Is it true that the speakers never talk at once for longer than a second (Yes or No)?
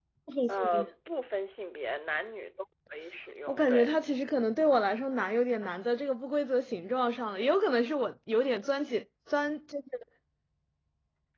Yes